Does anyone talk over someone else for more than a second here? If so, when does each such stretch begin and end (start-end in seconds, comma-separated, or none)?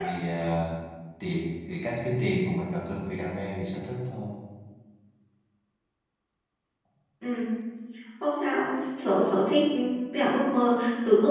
none